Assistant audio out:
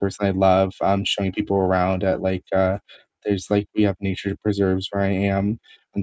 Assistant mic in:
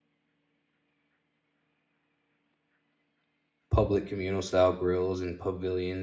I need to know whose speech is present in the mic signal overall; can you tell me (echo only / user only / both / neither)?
user only